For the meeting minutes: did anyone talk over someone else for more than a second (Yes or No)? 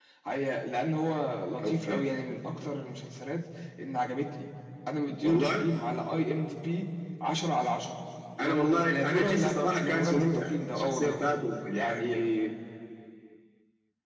Yes